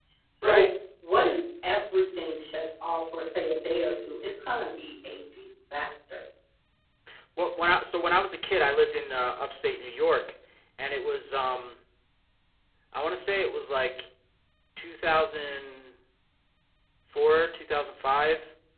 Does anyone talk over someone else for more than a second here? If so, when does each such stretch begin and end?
none

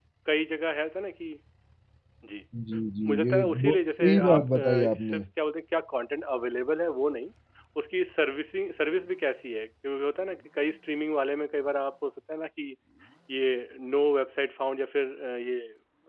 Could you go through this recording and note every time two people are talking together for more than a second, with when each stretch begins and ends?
3.1-5.2

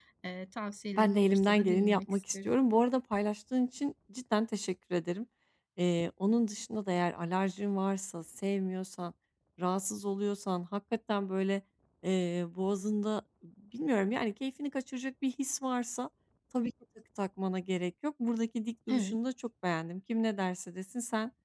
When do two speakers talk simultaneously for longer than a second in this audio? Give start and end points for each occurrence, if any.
0.9-2.5

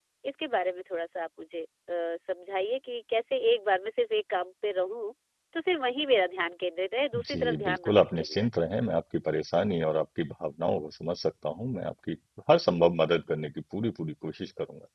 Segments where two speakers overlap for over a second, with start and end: 7.2-8.5

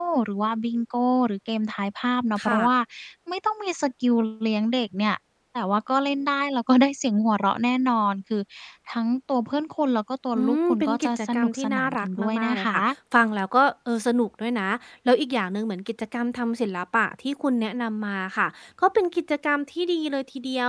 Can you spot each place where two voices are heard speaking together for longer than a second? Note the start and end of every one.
10.4-12.6

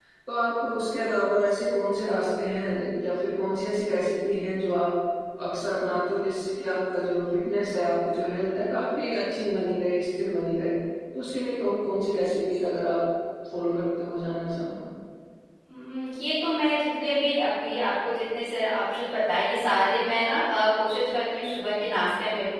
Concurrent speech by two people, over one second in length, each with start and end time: none

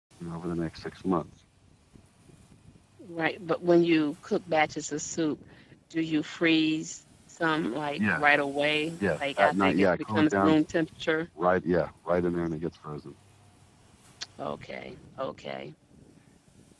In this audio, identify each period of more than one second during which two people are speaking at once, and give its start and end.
9.2-10.5

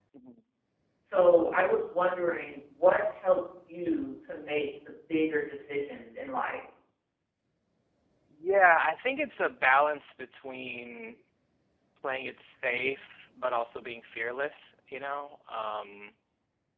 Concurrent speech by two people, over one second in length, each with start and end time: none

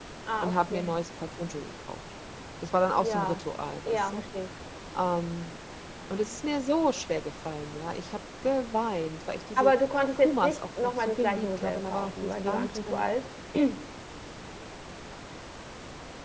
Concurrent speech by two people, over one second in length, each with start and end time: 10.1-13.1

